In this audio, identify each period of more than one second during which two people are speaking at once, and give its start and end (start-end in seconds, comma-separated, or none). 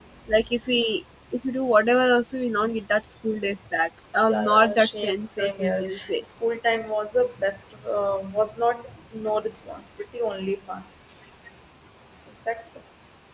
4.3-6.1